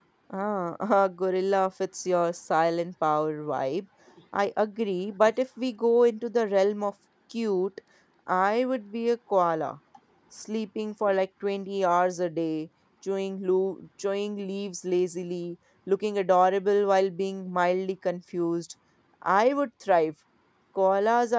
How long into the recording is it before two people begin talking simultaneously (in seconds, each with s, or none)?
none